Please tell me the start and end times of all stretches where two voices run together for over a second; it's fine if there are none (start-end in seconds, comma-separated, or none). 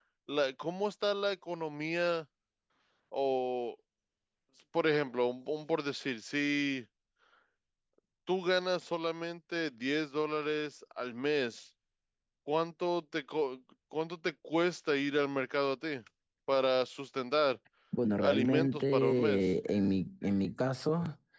18.2-19.4